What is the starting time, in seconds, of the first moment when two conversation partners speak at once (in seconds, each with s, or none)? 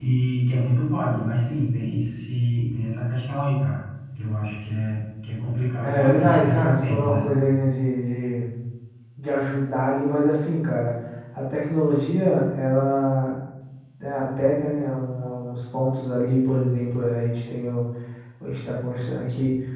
5.8 s